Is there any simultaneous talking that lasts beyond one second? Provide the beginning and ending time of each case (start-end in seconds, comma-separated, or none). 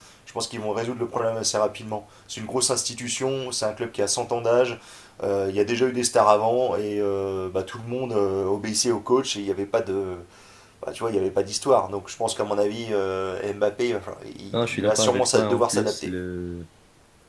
14.5-16.2